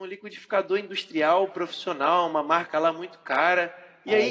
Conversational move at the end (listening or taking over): listening